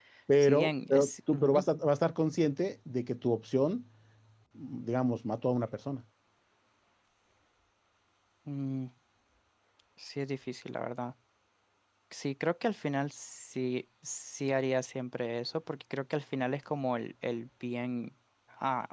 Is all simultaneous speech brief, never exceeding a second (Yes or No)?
No